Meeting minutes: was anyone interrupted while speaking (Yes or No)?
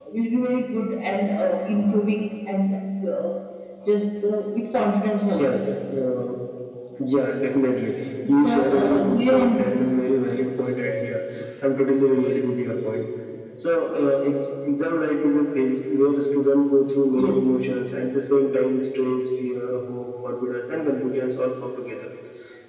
Yes